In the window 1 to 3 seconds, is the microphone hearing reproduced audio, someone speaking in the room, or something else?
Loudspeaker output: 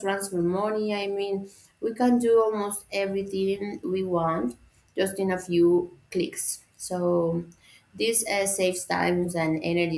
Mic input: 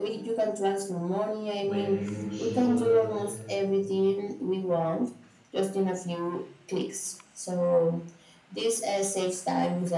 both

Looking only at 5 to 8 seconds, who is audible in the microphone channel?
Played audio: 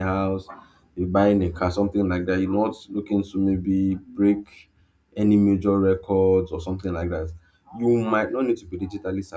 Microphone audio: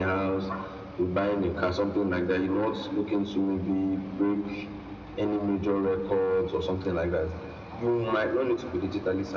echo only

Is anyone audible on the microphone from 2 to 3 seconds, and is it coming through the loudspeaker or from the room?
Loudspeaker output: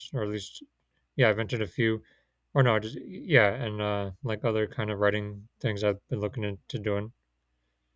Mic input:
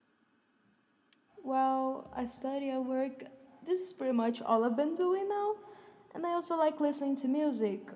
user only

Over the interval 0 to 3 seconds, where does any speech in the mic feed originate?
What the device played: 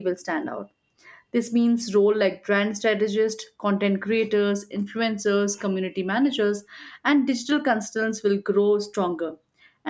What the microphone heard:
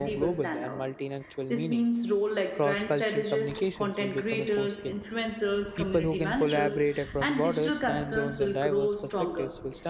both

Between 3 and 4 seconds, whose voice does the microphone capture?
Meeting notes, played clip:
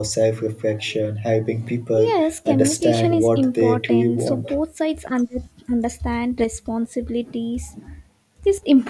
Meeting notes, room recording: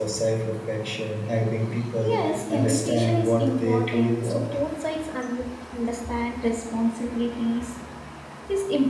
echo only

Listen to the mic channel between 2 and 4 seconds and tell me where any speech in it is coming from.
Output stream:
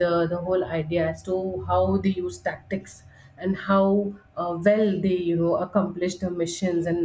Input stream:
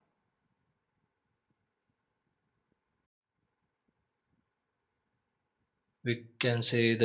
neither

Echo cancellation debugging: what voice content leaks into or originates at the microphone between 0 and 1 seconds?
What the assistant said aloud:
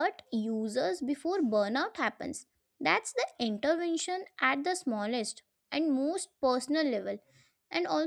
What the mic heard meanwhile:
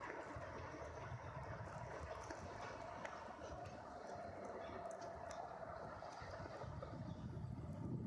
neither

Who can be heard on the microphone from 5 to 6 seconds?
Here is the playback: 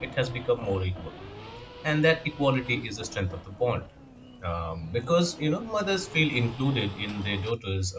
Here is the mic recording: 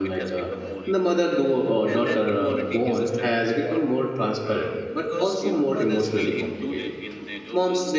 both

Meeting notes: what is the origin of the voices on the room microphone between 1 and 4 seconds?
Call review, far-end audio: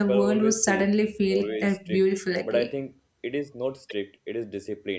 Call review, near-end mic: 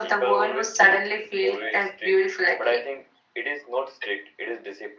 echo only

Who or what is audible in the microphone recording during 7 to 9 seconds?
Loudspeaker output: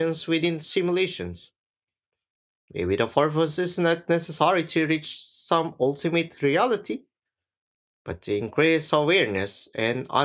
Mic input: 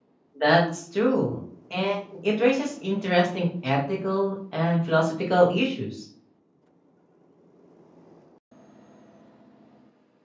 neither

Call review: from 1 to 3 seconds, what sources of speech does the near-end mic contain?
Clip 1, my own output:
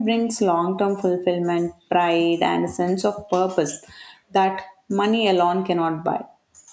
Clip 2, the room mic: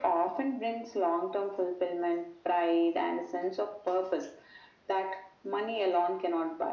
echo only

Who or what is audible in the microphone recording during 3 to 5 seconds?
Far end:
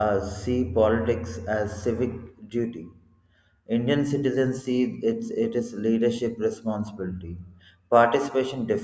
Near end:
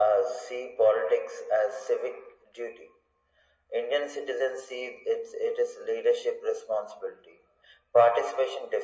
echo only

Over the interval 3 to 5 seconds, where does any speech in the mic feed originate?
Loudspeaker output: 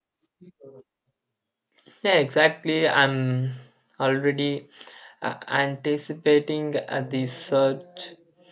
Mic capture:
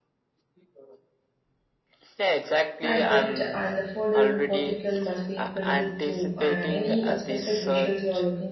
both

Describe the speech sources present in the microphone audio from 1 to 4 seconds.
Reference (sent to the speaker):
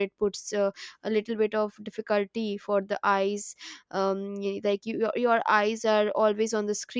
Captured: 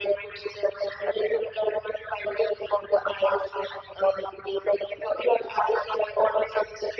echo only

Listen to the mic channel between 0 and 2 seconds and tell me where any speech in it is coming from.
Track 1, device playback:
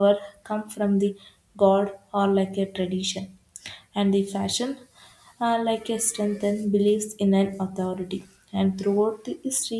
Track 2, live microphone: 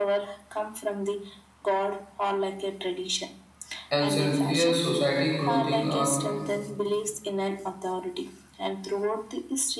echo only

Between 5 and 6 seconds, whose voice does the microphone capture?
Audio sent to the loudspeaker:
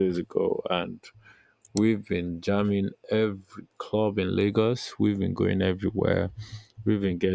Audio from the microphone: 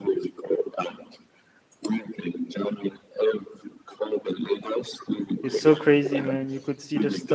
both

